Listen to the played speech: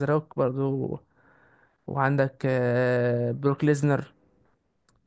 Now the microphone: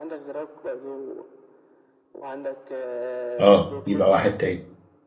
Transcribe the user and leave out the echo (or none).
اه يبقى واحد تاني